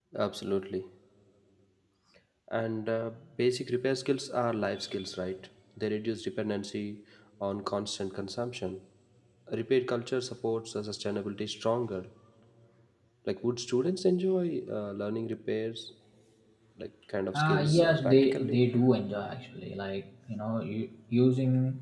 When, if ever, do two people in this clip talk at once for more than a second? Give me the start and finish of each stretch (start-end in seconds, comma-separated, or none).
17.3-18.6